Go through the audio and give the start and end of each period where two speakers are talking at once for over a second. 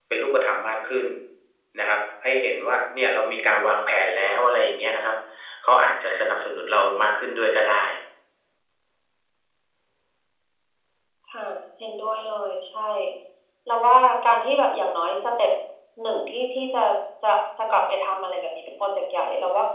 none

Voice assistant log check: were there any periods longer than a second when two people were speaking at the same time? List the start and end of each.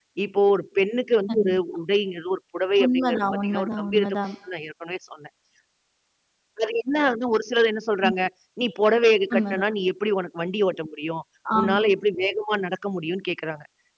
2.8-4.2

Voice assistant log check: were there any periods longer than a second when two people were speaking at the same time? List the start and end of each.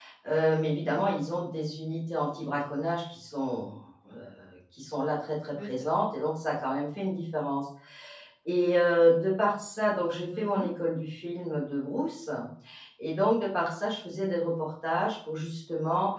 none

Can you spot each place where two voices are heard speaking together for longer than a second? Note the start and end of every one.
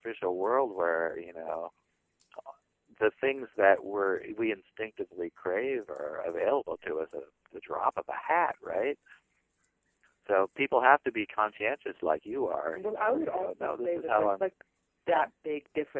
12.7-14.4

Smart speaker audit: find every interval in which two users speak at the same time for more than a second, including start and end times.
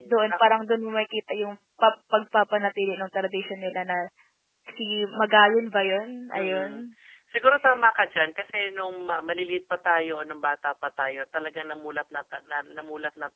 none

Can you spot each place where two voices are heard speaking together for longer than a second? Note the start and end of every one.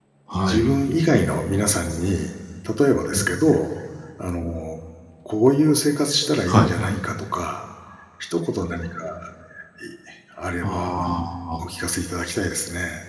none

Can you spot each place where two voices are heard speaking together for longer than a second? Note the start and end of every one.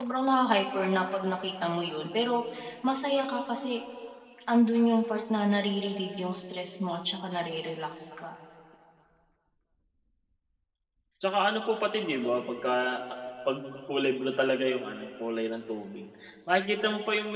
none

